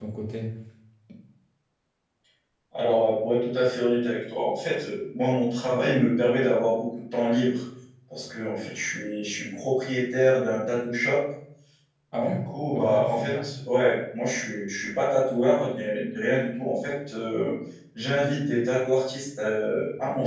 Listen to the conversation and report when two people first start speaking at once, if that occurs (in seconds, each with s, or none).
12.2 s